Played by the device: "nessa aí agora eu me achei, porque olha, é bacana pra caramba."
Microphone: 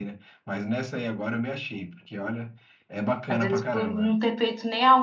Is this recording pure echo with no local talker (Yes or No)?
No